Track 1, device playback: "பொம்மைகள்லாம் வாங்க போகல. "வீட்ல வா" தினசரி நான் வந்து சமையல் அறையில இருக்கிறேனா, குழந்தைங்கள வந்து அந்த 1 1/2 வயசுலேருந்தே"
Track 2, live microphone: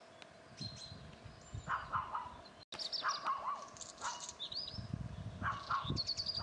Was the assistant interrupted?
No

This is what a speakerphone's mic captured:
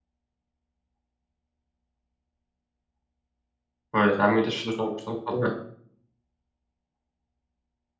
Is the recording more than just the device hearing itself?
Yes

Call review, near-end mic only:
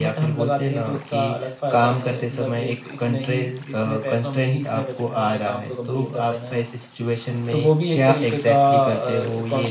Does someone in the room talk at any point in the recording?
No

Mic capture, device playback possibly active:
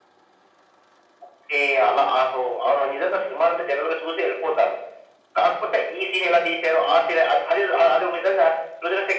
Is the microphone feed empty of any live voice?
Yes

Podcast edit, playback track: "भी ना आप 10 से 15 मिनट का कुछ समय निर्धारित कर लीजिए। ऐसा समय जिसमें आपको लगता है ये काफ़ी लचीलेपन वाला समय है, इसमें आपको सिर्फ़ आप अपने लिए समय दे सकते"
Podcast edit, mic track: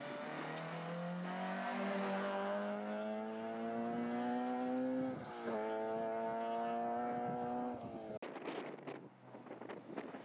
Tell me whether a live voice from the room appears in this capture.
No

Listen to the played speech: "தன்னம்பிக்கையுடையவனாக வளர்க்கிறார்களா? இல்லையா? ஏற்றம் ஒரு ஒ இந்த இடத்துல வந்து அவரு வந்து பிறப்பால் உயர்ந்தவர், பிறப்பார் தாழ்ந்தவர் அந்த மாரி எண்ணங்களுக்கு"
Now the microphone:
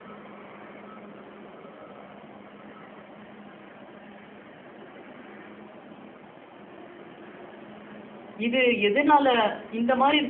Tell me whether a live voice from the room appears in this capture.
Yes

